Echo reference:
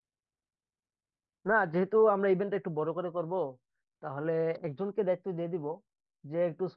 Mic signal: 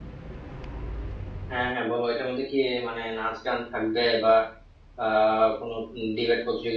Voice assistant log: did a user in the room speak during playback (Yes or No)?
Yes